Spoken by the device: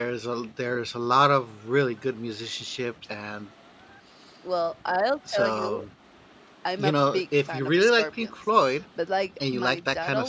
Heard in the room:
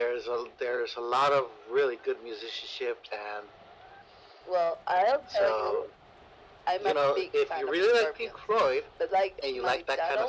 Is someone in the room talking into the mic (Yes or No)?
No